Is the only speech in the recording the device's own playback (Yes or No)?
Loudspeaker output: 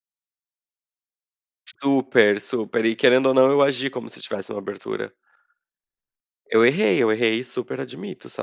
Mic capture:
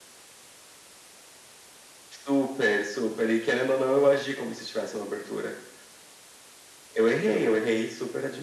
Yes